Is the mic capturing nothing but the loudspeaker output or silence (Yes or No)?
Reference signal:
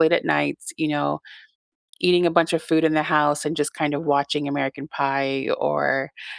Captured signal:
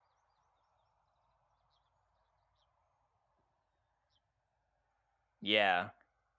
No